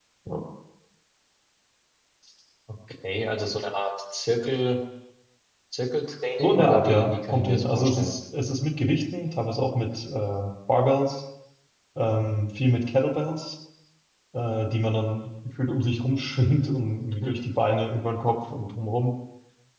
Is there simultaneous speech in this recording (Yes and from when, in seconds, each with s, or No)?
Yes, from 6.4 s